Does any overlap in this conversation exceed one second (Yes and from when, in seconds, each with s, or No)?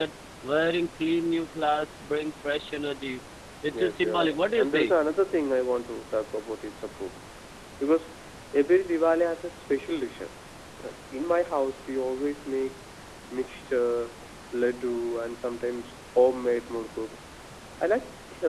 Yes, from 3.7 s